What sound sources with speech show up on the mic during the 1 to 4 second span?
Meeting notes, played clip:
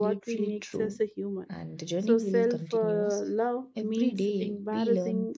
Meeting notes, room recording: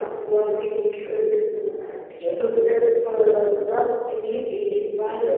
echo only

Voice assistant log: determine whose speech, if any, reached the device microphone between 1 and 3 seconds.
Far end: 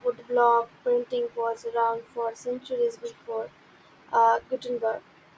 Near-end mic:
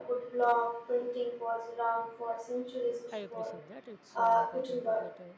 echo only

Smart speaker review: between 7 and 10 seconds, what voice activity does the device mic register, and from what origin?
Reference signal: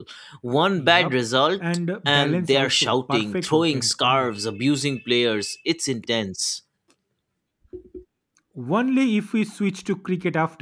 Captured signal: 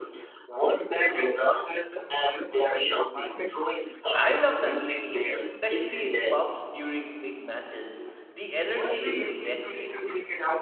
both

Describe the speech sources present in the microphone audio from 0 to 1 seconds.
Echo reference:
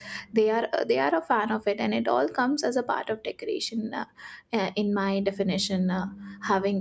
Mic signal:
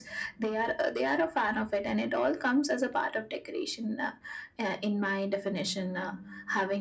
echo only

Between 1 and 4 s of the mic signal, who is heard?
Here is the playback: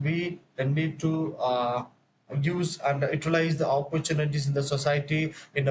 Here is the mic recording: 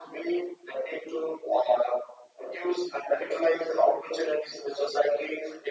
echo only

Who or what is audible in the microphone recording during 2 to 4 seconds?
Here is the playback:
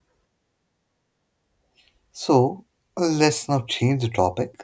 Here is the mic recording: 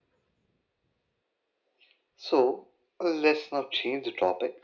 echo only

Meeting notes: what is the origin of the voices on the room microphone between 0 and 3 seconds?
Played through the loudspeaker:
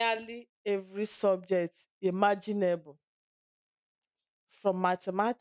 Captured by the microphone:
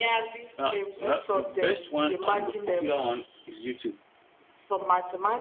both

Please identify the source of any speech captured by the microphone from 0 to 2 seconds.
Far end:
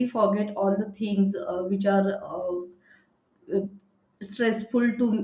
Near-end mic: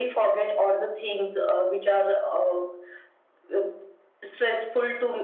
echo only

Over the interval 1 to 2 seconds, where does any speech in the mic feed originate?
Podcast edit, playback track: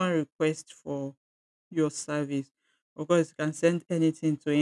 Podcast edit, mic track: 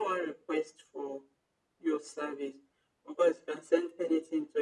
echo only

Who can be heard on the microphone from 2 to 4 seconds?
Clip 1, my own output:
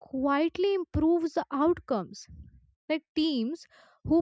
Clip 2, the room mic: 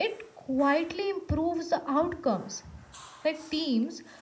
echo only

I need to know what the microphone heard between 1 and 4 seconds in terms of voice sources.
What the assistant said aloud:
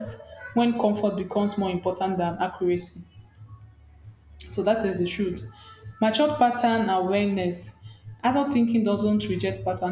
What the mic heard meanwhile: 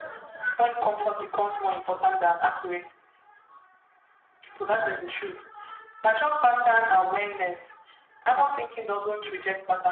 echo only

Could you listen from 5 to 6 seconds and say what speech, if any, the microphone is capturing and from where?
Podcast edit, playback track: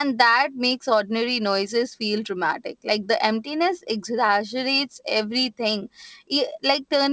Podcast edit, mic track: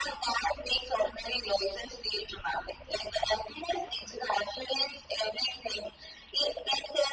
echo only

